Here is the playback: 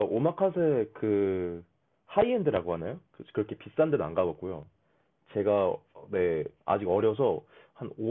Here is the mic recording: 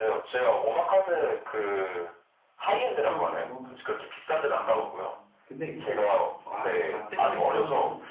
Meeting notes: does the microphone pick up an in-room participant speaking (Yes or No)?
Yes